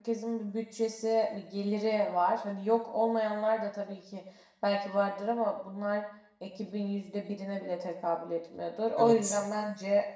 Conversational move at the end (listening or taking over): listening